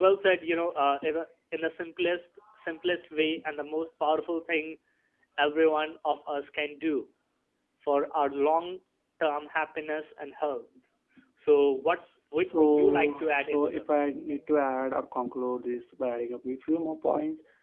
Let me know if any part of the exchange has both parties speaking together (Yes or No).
Yes